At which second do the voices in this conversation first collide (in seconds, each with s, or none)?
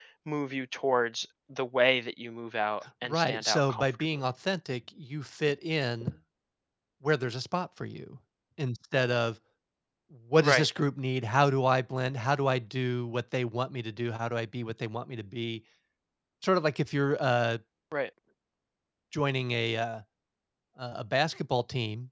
3.0 s